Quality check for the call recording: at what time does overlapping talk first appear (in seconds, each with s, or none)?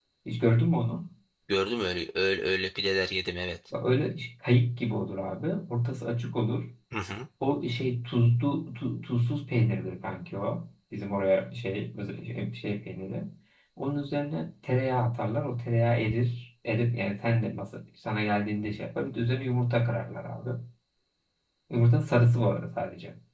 none